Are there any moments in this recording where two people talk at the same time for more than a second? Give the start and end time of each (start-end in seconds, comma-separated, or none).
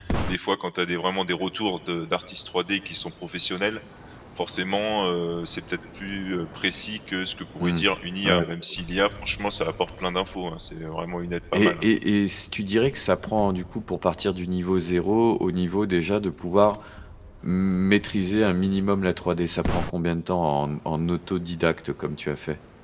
none